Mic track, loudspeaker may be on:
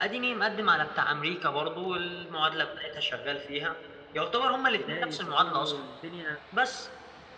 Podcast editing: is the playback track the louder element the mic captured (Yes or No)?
Yes